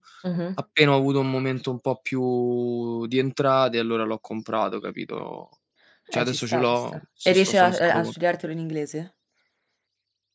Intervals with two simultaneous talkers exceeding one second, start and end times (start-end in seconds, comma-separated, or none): 6.1-8.1